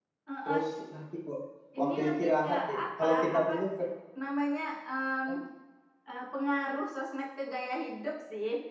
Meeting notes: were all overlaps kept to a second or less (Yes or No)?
No